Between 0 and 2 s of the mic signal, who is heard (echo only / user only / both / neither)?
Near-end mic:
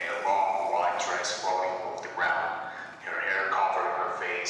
echo only